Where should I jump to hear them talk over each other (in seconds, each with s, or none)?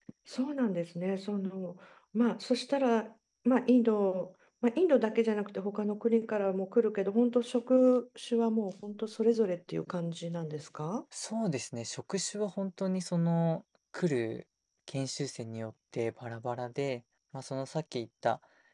none